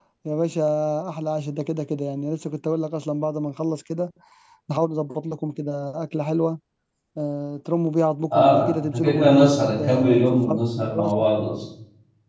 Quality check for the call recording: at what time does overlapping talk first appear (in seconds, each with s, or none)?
8.3 s